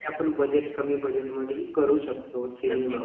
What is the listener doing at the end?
taking over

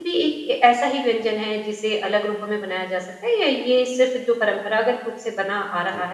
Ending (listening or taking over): listening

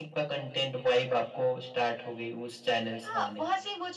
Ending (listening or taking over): taking over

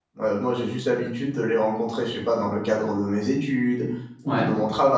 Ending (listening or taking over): listening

